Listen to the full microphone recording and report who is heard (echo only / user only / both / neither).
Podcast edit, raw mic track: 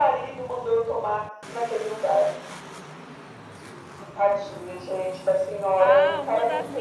both